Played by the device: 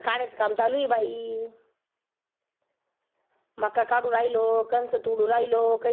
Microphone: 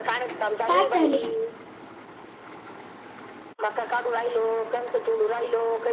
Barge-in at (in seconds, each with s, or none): 0.6 s